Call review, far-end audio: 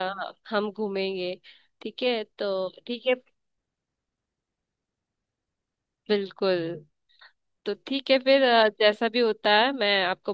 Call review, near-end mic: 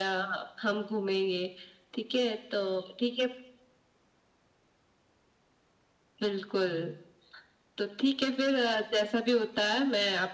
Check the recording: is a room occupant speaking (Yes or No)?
No